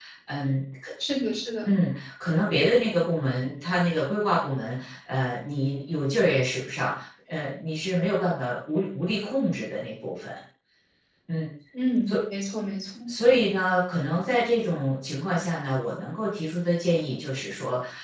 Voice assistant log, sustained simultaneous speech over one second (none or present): none